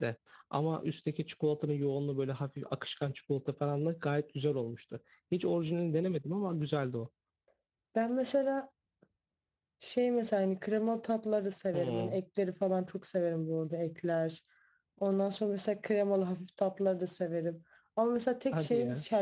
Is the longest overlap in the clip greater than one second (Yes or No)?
No